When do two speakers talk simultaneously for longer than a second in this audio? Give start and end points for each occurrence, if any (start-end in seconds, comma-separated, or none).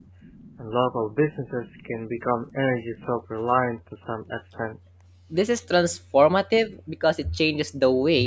none